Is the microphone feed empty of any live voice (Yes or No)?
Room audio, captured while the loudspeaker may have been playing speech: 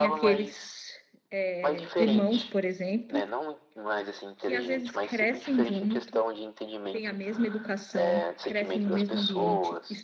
No